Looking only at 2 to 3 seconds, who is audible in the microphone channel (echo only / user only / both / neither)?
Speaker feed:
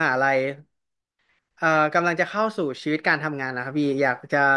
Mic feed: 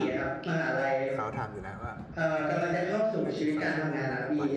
both